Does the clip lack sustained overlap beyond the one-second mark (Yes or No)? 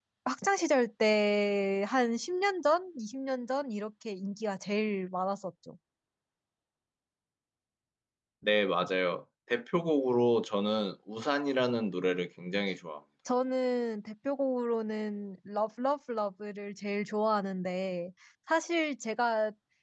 Yes